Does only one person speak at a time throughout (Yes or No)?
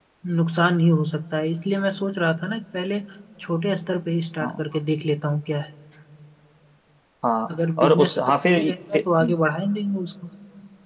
No